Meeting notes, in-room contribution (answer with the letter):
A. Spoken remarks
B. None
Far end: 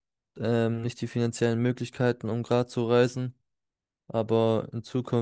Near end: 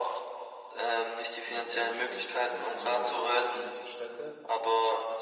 A